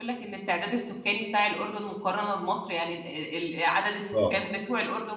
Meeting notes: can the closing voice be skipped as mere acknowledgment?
Yes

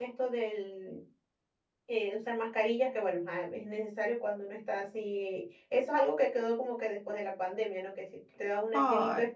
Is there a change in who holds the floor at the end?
No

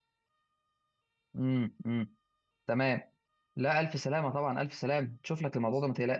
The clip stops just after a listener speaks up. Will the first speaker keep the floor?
Yes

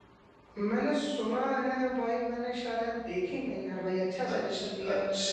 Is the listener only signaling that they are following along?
No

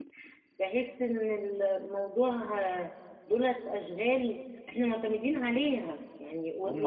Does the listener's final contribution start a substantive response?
Yes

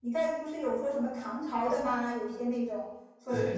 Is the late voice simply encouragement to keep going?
Yes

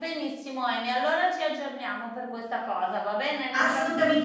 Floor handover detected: Yes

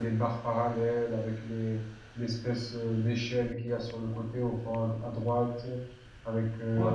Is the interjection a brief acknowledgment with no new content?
Yes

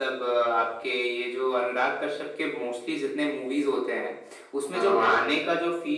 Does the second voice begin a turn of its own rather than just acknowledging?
No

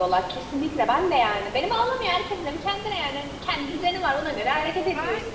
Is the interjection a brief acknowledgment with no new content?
No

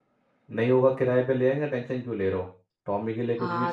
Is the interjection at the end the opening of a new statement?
Yes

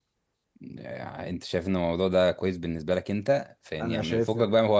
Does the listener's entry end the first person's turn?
No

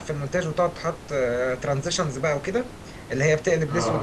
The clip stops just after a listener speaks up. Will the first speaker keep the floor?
Yes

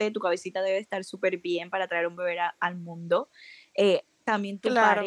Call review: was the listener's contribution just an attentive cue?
Yes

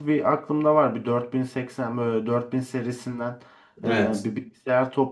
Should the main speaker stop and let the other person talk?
No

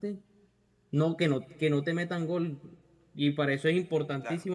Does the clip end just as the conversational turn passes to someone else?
No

